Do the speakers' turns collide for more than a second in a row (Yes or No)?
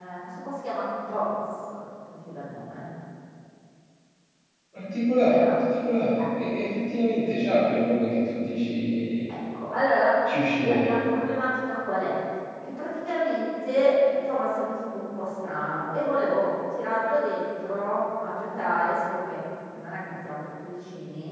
No